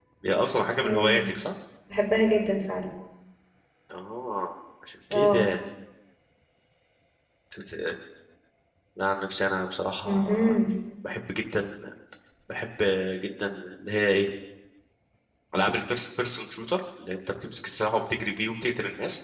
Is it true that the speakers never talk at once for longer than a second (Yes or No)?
Yes